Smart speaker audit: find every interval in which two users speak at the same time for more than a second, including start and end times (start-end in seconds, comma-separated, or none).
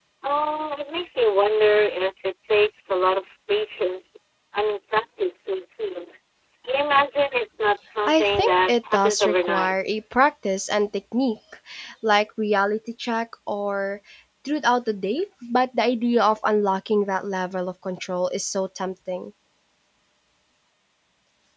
8.0-9.7